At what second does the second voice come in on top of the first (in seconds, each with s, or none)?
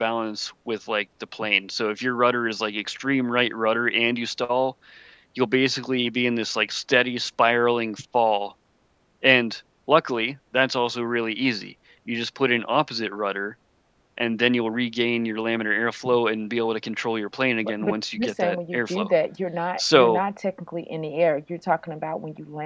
17.6 s